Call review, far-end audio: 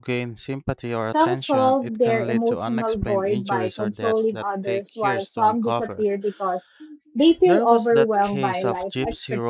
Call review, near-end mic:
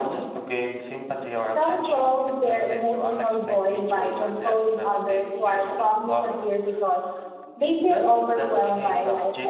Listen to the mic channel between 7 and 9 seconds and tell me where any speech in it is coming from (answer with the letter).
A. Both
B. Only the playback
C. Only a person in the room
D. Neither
B